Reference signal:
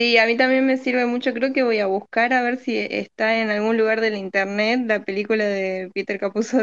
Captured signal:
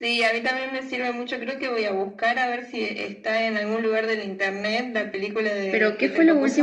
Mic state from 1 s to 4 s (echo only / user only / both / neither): echo only